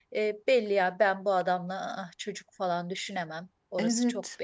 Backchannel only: No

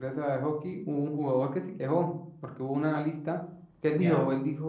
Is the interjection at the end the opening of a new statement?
No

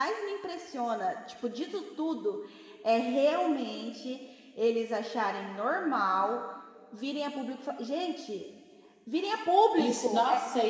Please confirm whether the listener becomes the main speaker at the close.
Yes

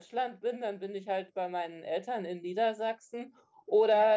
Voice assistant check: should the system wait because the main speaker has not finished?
Yes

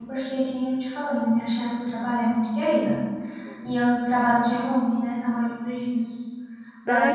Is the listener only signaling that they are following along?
Yes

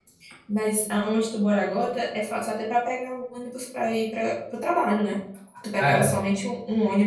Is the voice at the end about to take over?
No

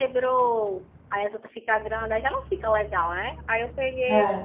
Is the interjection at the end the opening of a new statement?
No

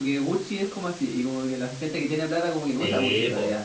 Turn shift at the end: Yes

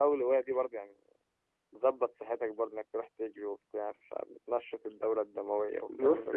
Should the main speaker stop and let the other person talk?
Yes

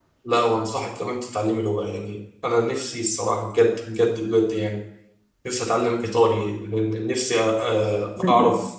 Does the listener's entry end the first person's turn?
No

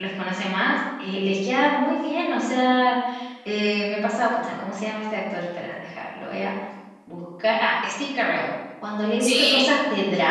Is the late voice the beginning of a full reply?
No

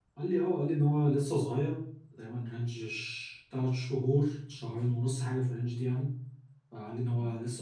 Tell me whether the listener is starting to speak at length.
No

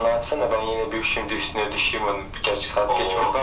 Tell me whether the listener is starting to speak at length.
No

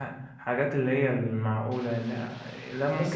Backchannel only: No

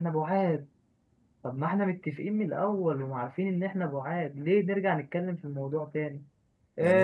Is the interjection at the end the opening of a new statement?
No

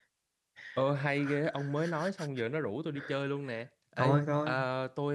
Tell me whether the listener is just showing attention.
Yes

